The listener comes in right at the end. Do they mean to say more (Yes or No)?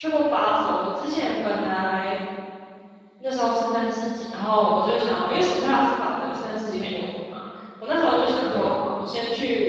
No